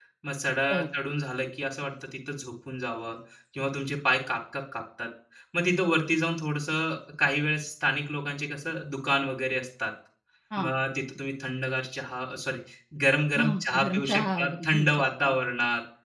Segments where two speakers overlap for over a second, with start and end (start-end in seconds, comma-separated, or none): 13.4-15.3